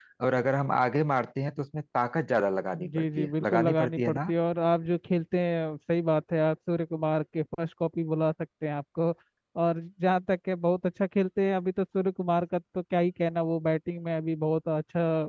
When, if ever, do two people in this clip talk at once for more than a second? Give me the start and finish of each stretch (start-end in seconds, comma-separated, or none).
2.9-4.3